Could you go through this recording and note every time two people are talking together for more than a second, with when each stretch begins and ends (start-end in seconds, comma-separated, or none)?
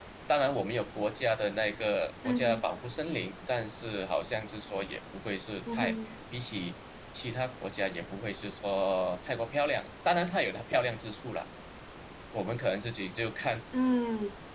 none